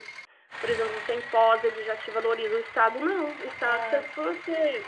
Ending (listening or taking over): listening